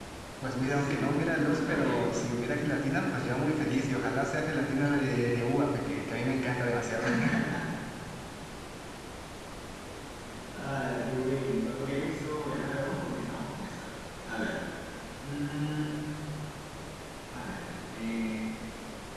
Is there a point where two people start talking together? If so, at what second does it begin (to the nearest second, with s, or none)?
1 s